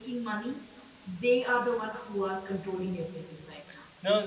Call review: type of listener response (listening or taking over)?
taking over